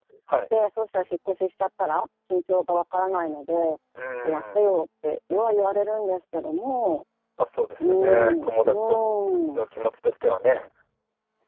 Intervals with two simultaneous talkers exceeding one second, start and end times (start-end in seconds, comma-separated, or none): 7.8-9.0